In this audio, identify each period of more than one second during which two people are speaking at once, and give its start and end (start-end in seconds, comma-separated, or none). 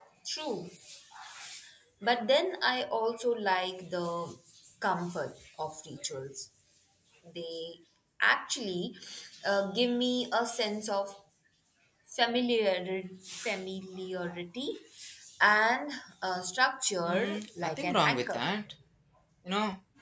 17.0-18.4